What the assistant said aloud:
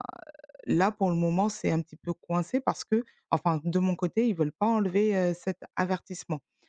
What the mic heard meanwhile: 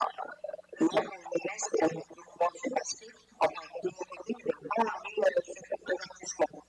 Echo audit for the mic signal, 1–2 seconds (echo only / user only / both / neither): echo only